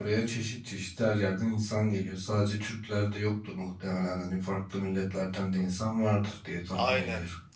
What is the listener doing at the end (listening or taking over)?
taking over